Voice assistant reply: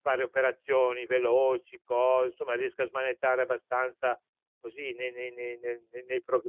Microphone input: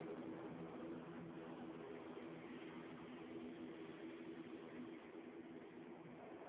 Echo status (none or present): none